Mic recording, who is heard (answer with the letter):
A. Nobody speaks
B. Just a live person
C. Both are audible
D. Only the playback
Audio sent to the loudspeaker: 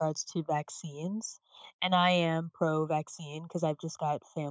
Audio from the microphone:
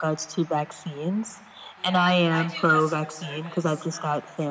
C